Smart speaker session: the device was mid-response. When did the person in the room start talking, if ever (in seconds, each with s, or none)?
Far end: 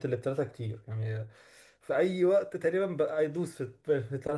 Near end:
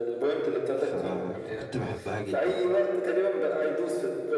0.8 s